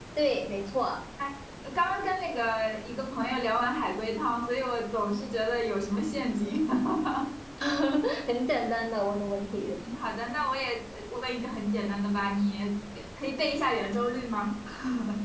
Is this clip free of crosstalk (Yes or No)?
Yes